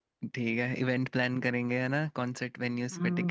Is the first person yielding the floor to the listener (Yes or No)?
Yes